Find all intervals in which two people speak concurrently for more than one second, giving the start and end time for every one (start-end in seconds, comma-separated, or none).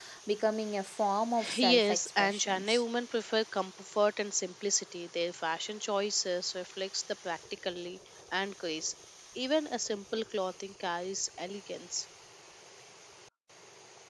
1.6-2.8